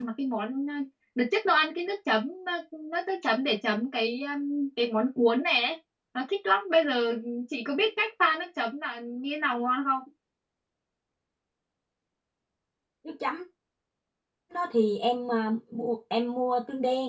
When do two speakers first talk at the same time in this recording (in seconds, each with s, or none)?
none